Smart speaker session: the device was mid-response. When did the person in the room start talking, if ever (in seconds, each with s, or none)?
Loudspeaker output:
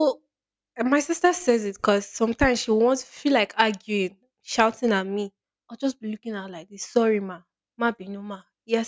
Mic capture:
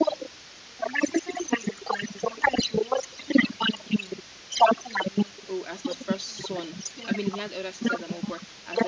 5.5 s